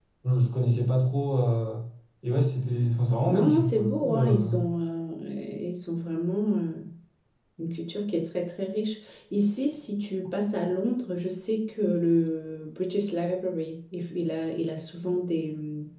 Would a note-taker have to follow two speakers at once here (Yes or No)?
Yes